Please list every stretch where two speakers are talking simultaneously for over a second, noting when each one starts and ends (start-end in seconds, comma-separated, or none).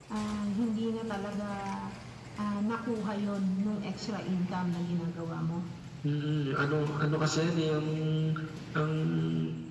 none